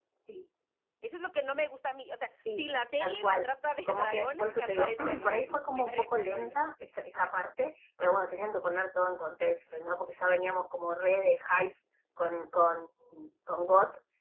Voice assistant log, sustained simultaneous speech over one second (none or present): present